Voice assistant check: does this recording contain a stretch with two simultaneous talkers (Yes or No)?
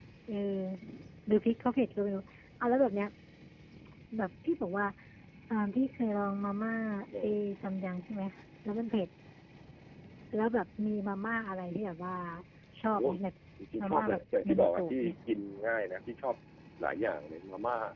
Yes